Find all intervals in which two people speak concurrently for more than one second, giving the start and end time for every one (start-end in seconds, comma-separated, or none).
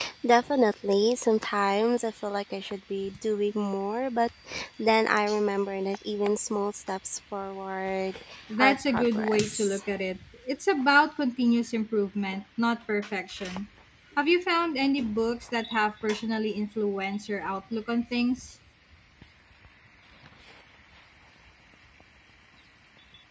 8.6-9.8